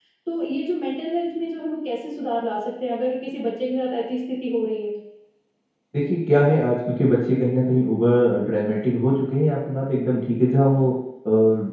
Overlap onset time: none

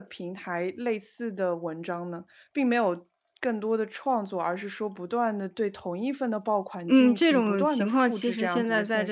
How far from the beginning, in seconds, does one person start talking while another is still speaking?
6.8 s

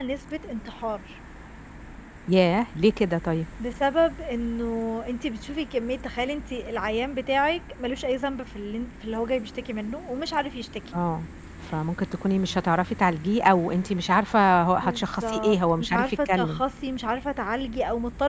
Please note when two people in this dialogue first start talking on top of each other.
14.8 s

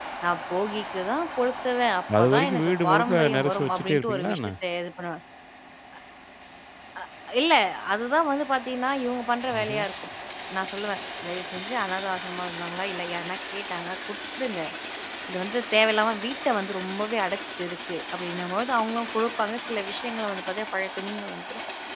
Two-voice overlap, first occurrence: 2.2 s

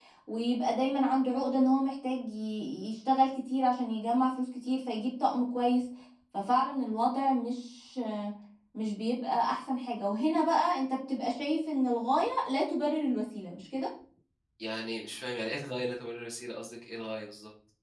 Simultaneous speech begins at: none

